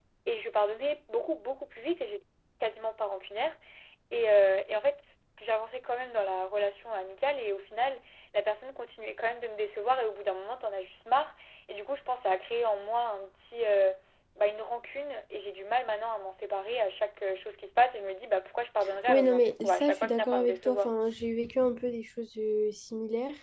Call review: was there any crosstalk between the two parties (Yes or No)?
Yes